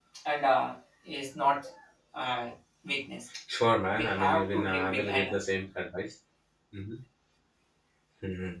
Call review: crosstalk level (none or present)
present